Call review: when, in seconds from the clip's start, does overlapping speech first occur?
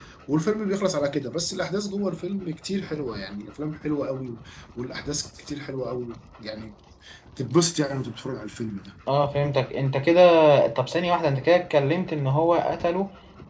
none

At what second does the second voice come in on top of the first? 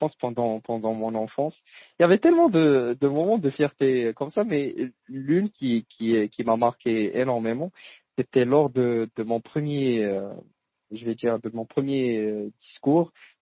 none

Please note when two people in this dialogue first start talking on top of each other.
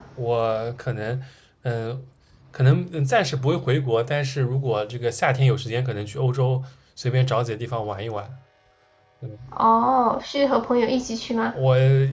none

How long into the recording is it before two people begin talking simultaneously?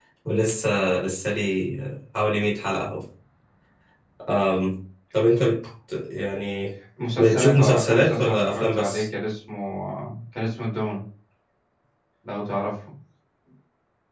7.2 s

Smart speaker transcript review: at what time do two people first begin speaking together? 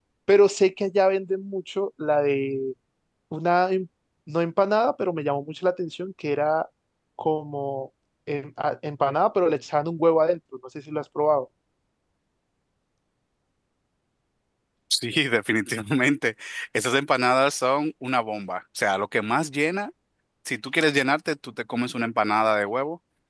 none

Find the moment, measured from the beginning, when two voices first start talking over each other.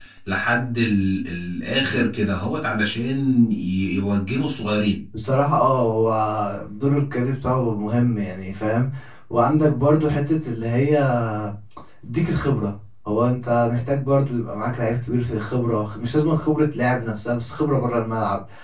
none

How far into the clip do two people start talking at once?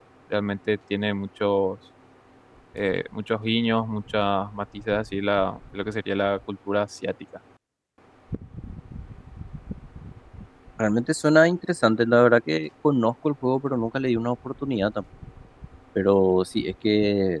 none

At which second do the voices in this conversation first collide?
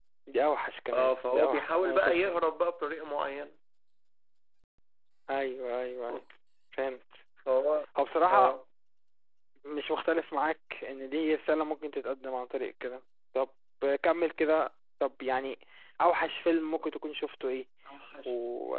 0.9 s

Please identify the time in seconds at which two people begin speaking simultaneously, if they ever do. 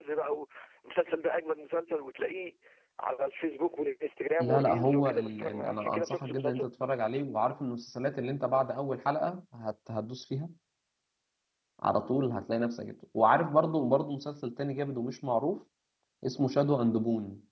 4.4 s

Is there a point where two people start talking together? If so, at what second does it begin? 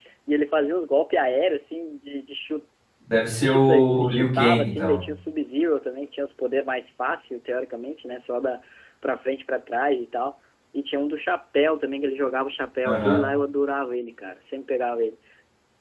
3.4 s

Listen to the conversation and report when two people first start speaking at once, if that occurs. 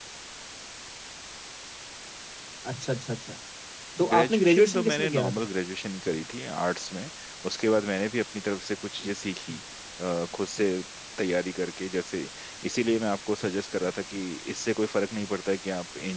4.1 s

